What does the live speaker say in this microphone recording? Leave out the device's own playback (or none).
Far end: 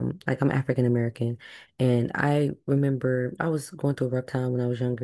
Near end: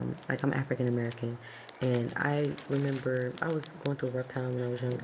none